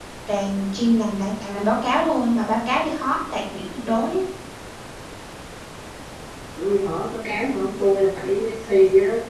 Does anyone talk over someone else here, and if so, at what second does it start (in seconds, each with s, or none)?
none